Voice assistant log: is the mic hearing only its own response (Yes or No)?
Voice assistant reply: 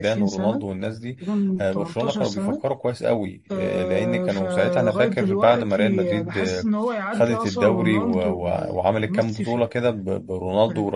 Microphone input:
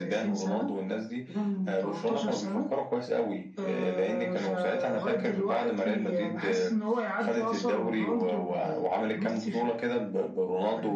Yes